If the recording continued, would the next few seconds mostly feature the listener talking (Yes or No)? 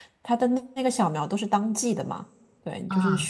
No